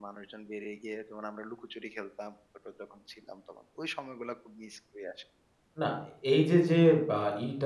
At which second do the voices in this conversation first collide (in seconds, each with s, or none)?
none